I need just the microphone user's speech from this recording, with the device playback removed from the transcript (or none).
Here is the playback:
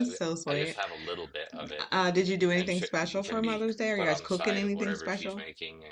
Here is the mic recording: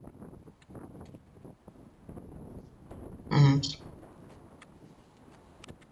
Mm-hmm.